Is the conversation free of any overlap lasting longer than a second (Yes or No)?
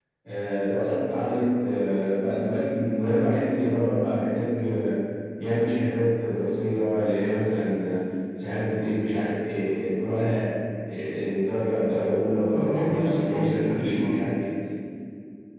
No